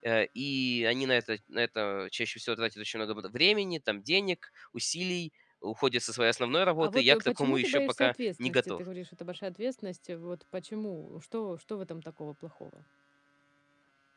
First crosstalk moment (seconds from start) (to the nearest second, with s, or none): 7 s